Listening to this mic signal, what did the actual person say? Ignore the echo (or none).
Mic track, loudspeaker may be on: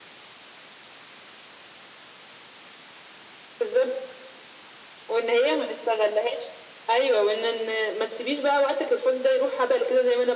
none